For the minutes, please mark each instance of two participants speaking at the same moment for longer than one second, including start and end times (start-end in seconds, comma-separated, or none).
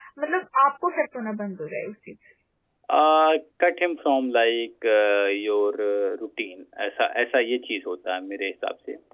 none